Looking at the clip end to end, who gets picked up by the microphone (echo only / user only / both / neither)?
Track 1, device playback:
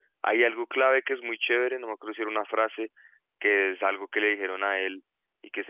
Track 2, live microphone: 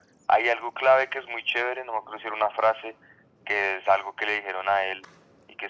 echo only